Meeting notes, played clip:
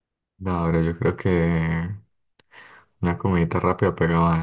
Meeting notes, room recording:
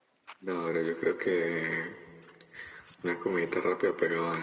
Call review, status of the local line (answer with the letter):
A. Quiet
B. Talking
A